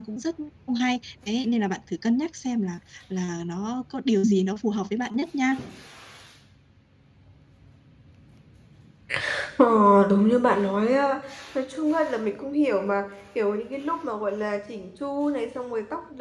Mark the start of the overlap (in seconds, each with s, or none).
none